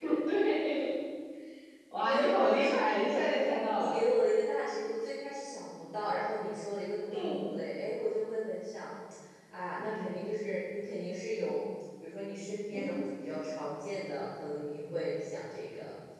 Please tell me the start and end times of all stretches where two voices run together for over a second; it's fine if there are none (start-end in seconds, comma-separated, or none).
2.0-4.0